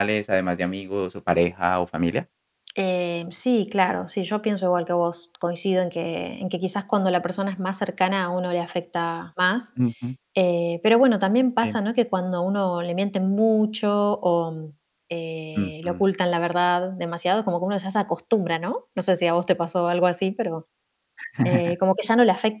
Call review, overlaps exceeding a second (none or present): none